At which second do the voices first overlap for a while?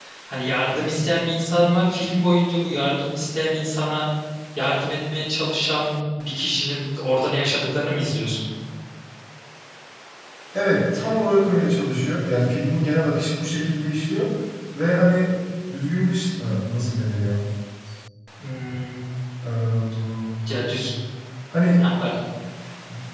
none

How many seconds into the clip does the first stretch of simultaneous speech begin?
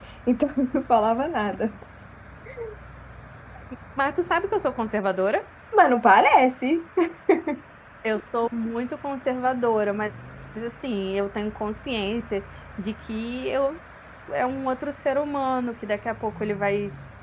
none

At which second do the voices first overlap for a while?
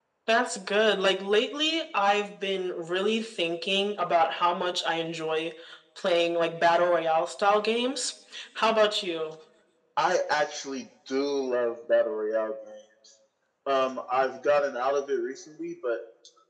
none

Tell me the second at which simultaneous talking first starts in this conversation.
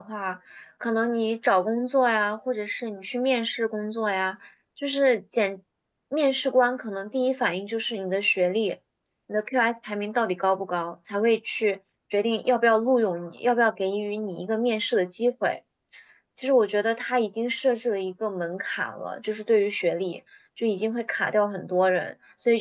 none

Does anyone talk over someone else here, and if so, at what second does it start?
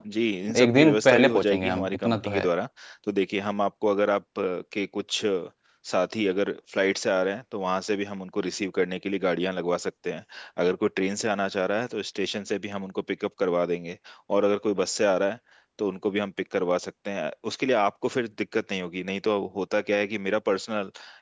0.6 s

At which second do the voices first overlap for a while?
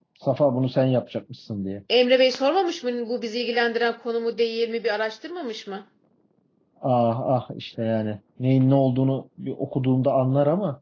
none

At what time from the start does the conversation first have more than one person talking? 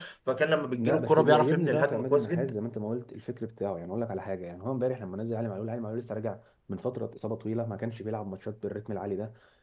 0.8 s

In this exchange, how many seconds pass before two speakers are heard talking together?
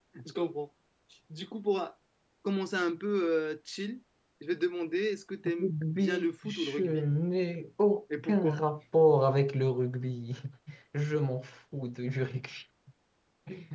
5.6 s

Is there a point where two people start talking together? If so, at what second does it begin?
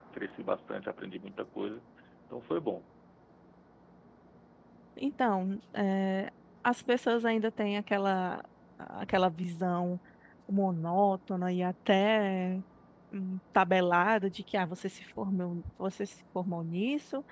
none

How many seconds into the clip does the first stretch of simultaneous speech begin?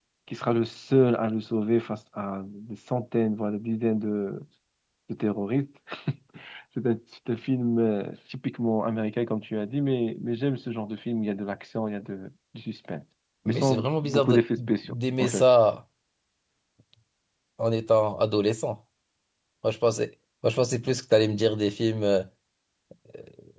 13.5 s

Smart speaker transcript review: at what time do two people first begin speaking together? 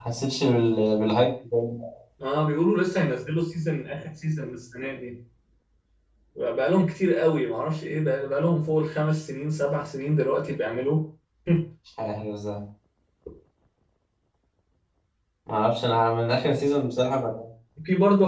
none

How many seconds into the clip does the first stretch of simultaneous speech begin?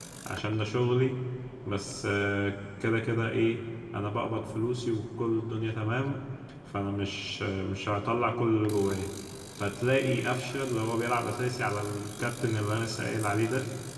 none

